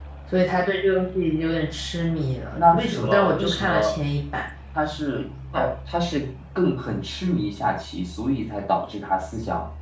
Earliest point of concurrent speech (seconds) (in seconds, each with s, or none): 2.6 s